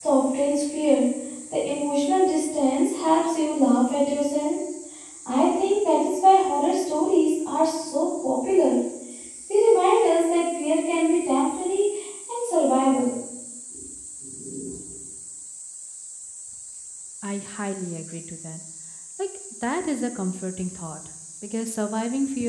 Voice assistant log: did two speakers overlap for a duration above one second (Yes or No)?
No